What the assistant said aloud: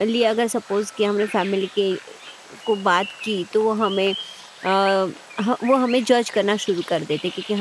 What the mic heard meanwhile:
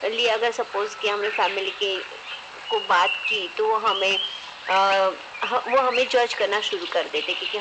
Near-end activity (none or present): none